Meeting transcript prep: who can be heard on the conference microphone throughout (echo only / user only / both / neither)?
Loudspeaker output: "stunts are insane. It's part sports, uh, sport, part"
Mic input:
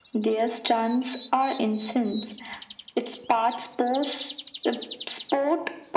echo only